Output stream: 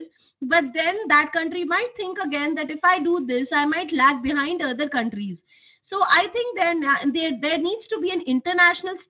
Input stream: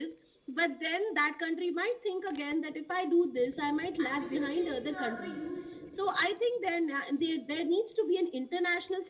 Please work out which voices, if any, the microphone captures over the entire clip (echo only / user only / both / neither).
both